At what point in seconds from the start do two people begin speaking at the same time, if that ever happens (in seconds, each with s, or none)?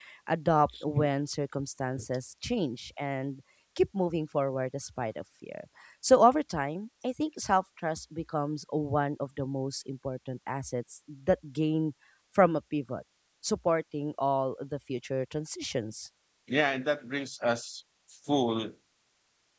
none